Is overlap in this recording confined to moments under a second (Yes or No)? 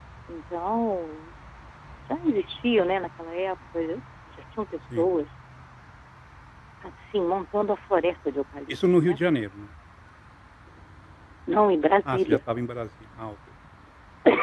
Yes